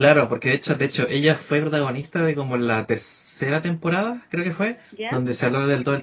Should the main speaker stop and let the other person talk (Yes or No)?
No